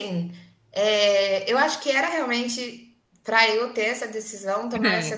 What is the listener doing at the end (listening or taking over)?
listening